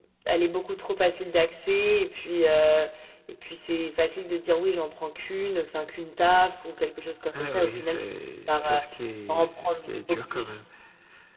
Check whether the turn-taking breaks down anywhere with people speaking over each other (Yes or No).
Yes